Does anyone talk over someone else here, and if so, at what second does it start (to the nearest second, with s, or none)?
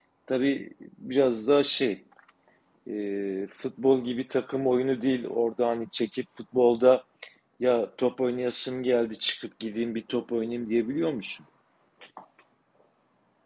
none